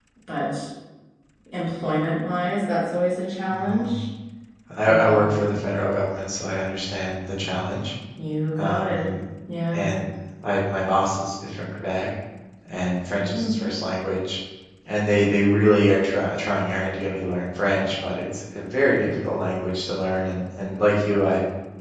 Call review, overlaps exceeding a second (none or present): none